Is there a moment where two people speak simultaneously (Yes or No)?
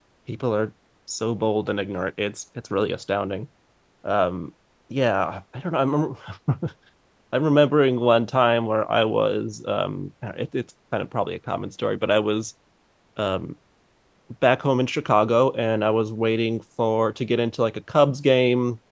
No